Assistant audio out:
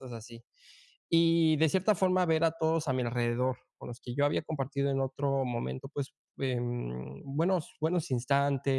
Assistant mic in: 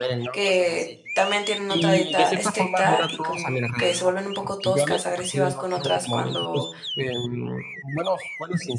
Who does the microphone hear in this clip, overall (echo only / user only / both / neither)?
both